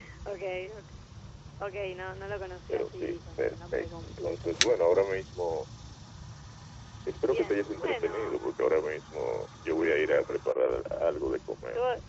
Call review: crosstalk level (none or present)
present